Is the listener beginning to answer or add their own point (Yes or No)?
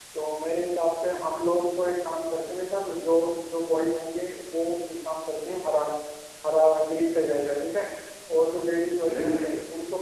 No